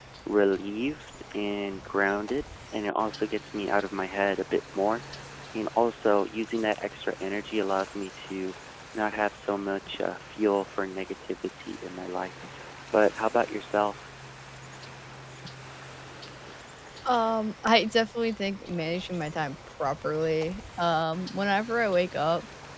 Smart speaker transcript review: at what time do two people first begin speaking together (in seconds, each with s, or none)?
none